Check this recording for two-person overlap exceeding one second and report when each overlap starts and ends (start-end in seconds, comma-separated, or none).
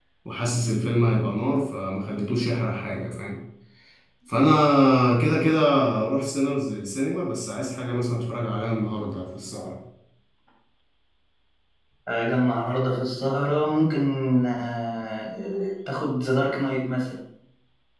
none